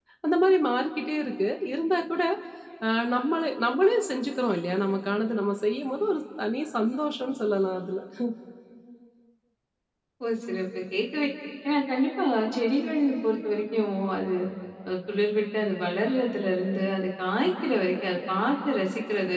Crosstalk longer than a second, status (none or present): none